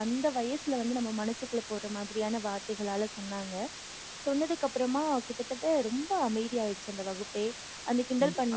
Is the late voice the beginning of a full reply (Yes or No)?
Yes